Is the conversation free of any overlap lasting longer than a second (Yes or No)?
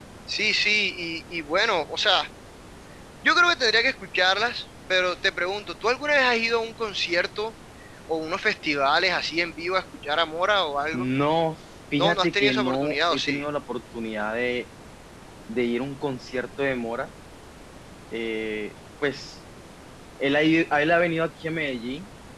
No